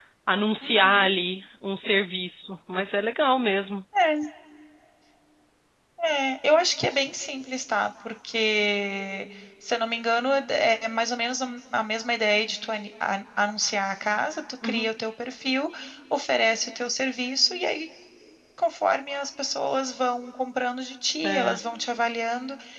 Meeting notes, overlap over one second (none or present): none